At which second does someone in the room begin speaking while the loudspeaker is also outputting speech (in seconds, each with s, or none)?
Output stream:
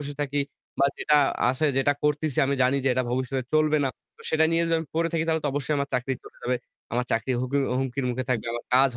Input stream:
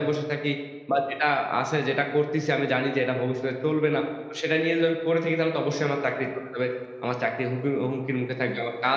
none